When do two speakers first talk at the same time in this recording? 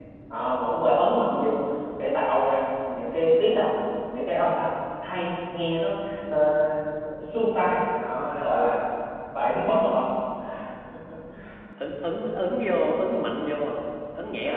none

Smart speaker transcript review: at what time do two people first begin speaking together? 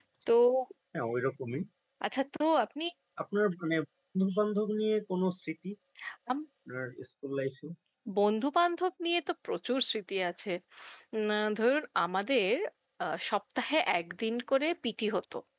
none

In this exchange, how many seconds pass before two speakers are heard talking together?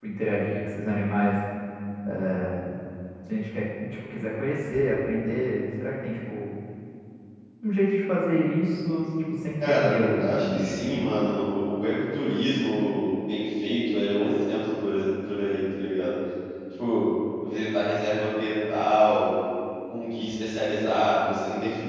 9.6 s

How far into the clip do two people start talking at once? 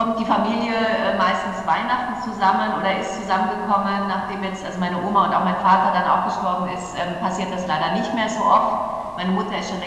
none

